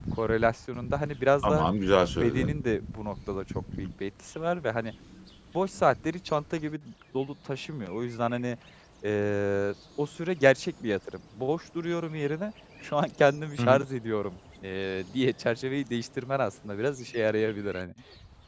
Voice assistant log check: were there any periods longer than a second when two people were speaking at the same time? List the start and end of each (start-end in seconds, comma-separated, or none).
none